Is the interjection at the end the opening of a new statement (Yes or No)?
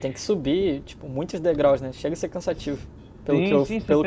Yes